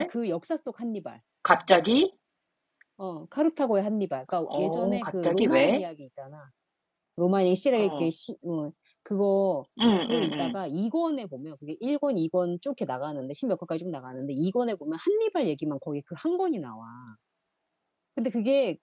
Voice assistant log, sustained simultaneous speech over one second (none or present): present